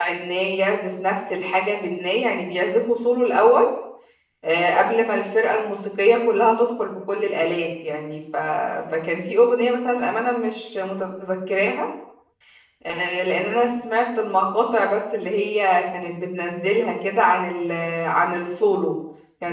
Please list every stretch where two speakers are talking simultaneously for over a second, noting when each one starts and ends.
none

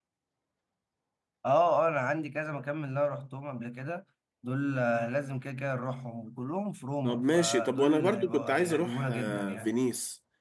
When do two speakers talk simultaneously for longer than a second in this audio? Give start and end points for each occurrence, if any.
7.0-9.7

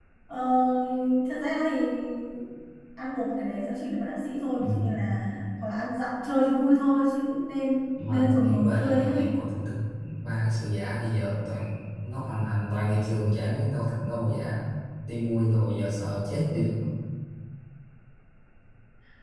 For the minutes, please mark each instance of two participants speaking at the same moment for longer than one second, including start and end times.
8.1-9.3

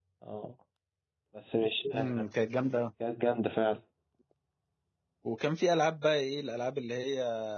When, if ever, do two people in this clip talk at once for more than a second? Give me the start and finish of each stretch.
none

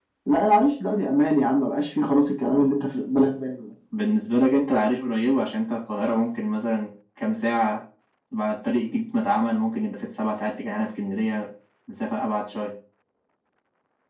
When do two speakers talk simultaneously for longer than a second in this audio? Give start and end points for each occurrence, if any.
none

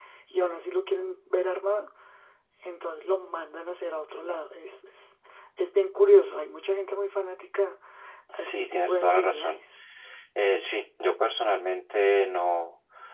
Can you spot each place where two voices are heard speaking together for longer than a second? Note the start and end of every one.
8.3-9.6

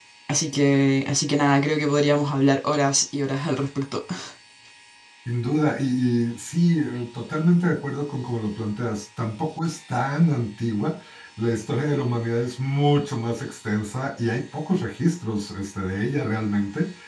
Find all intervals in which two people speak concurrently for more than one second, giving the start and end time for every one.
none

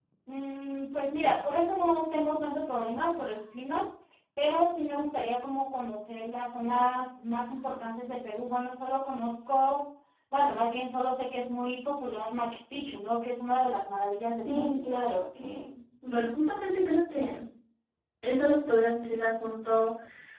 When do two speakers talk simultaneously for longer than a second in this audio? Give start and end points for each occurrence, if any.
none

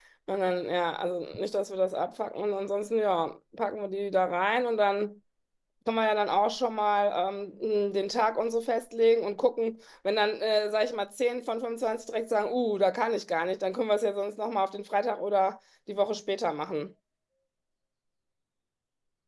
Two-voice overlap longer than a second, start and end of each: none

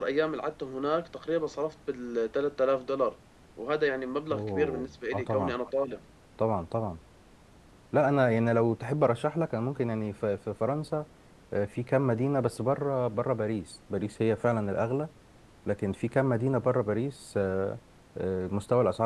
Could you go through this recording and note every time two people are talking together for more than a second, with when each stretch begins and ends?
4.3-5.5

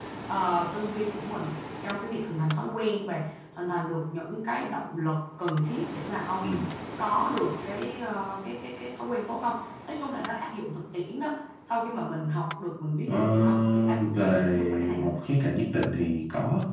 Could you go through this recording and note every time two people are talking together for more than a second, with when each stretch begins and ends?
13.1-15.1

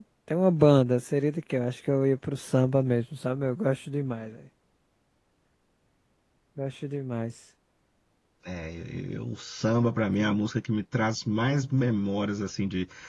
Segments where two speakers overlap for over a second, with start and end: none

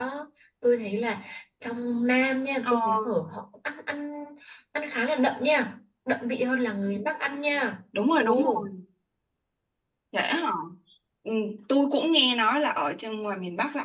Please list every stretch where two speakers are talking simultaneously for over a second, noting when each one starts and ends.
none

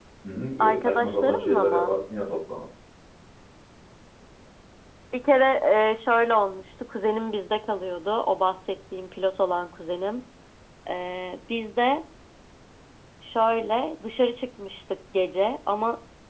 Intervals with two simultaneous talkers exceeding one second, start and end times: 0.6-1.9

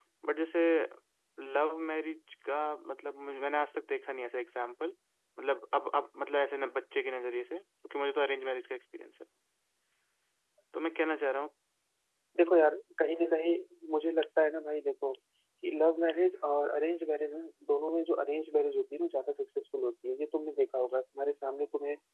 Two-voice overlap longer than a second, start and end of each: none

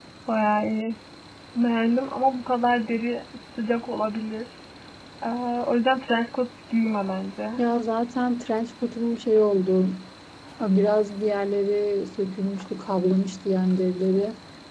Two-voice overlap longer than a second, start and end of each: none

